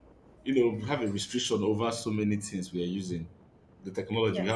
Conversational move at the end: listening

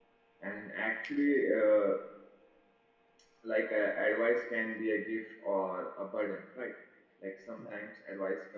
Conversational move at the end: listening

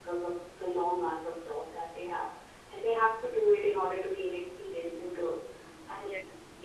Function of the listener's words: listening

